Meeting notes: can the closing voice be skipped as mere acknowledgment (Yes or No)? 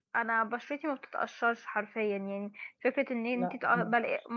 Yes